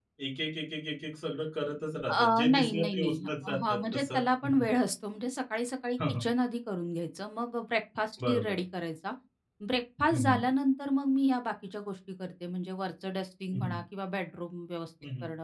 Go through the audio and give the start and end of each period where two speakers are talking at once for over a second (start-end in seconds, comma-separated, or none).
2.1-4.7